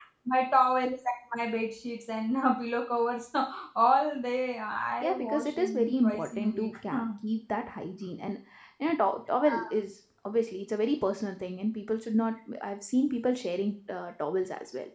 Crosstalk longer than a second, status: present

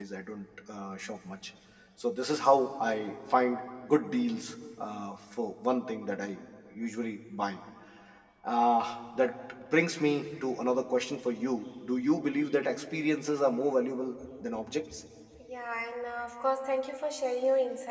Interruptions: none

